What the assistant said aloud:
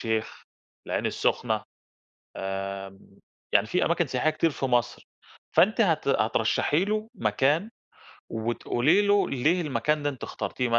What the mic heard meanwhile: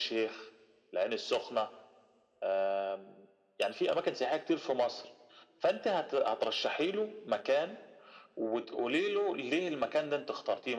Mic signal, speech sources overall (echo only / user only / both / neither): echo only